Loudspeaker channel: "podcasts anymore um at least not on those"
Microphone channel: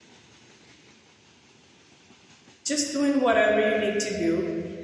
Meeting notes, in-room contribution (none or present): present